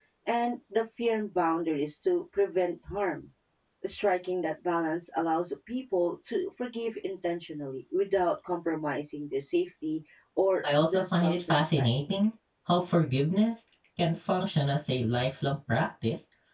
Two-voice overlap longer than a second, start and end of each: 10.6-11.9

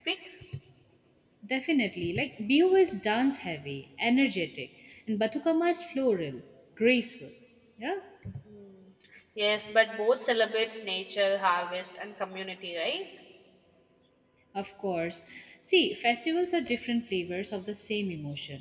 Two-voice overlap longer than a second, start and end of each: none

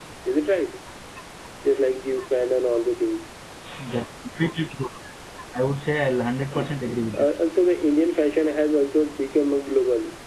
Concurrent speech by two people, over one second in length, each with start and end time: none

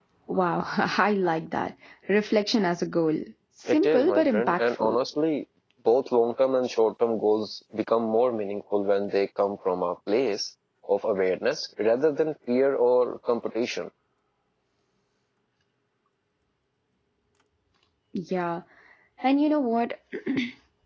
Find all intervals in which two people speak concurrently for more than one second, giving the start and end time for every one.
3.7-5.0

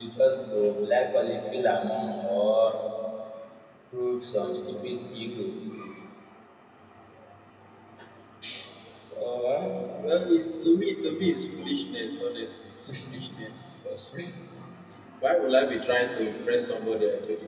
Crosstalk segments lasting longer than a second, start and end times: none

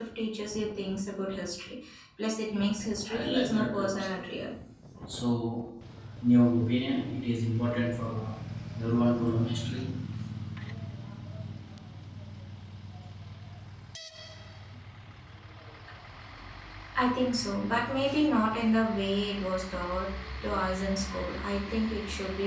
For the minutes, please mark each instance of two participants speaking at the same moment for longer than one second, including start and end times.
3.0-4.5

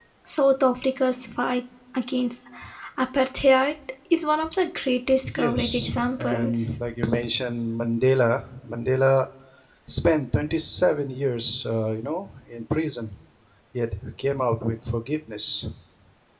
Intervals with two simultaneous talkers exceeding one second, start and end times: 5.4-6.7

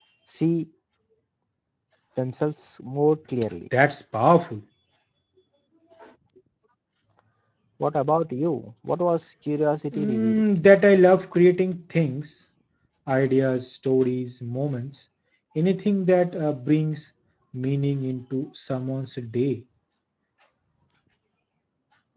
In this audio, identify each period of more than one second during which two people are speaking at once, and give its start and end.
none

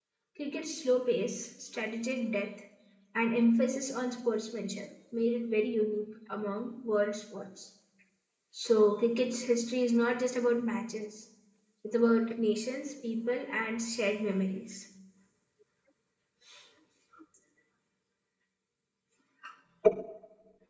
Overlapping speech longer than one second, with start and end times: none

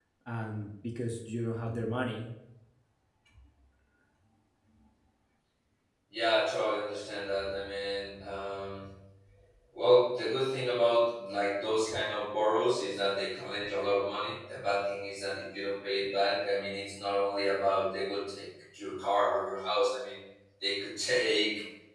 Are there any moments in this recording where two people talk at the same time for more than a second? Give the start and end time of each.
none

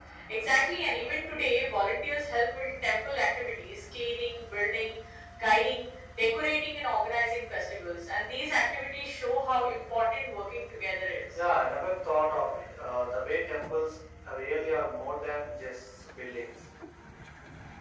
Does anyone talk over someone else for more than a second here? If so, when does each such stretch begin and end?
none

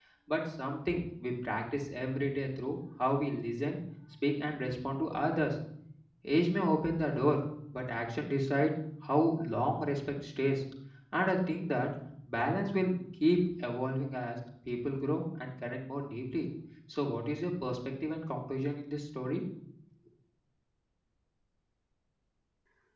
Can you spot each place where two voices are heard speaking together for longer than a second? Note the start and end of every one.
none

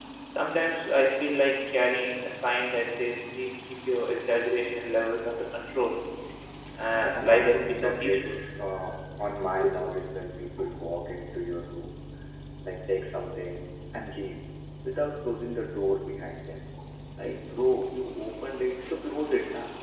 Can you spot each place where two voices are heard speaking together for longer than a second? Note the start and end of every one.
6.9-8.3

